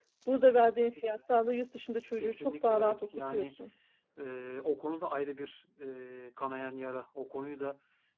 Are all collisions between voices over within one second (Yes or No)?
No